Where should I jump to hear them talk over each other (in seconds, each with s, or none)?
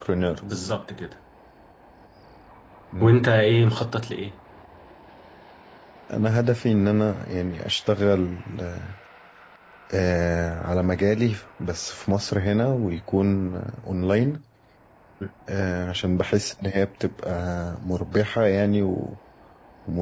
none